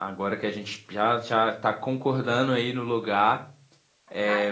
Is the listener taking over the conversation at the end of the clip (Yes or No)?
Yes